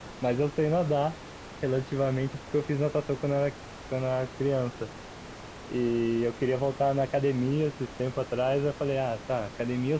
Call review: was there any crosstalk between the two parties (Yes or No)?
No